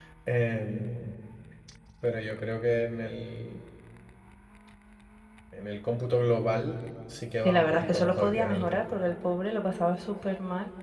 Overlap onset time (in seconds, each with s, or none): 7.4 s